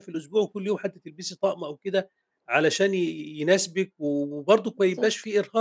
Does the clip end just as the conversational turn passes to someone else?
No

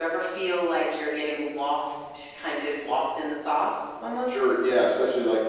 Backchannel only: No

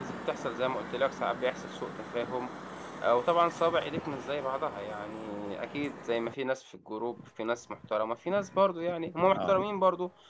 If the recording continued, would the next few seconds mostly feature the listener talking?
No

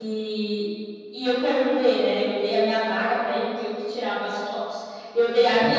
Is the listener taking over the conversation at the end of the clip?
No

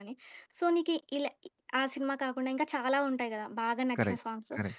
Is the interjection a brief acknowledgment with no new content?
Yes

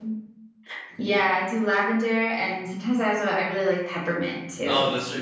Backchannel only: No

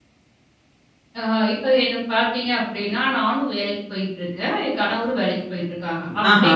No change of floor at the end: Yes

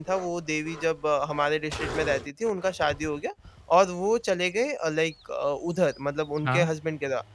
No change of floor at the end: Yes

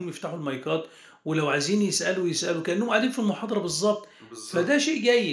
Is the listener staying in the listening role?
Yes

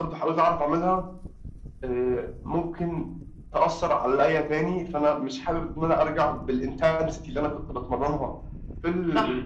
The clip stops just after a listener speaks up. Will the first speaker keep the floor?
Yes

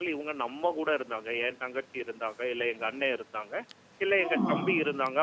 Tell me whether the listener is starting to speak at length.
No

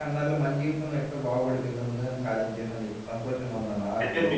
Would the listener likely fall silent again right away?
No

